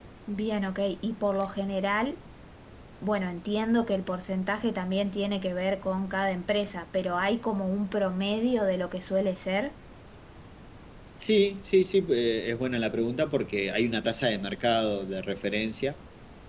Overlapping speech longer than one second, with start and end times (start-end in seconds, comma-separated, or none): none